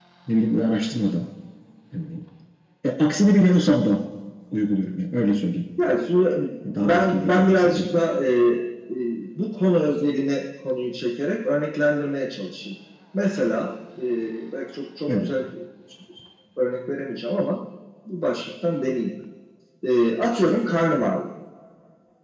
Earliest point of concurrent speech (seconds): 6.6 s

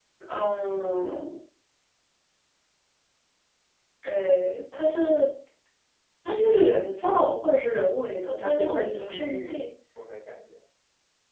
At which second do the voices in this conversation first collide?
8.4 s

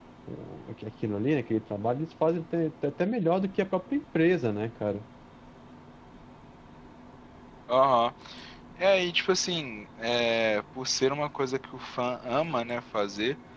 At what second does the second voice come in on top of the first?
none

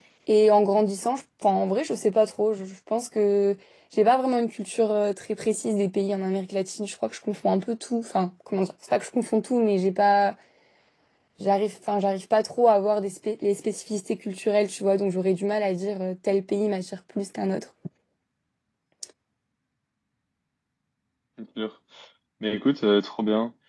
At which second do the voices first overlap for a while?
none

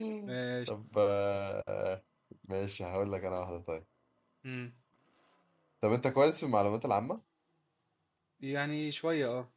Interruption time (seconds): none

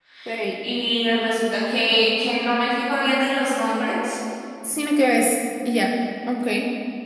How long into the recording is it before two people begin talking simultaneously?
none

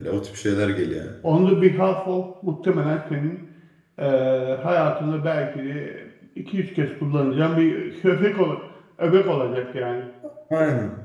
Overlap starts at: none

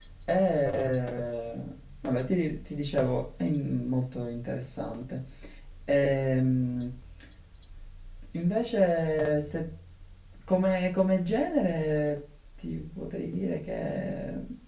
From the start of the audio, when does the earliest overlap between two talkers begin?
none

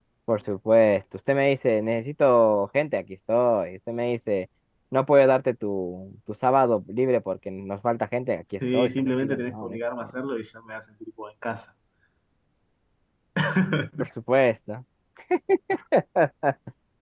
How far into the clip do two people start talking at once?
8.7 s

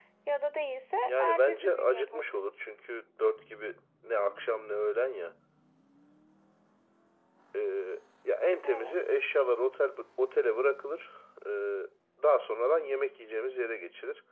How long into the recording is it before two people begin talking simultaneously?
1.0 s

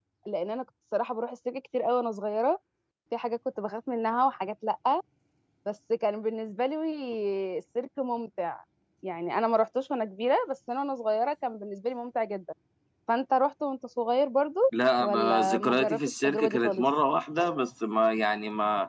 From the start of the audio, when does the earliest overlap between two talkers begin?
15.0 s

